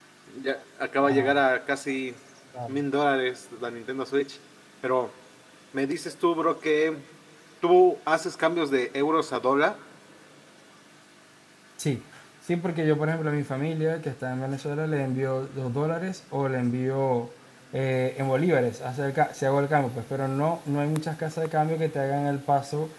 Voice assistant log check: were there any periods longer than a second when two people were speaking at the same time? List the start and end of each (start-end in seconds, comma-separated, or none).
none